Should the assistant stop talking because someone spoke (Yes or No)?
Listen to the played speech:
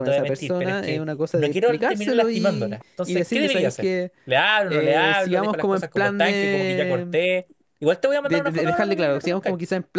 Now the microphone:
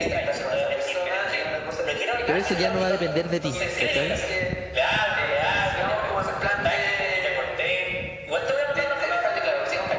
Yes